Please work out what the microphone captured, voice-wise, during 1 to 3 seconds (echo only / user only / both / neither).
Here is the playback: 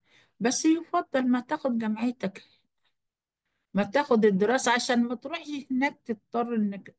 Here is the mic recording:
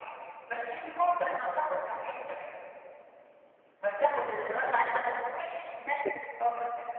echo only